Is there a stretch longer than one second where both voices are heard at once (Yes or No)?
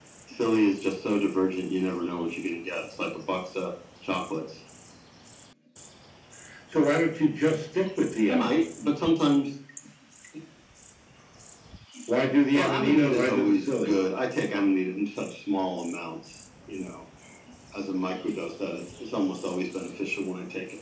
Yes